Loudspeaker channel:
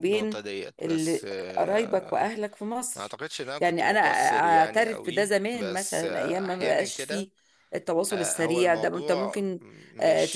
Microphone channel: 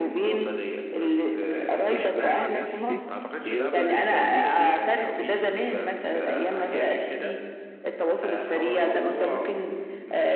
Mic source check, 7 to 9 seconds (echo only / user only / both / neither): echo only